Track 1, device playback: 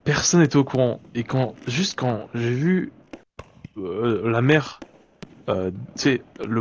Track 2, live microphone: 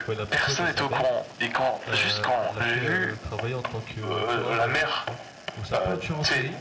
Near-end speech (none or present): present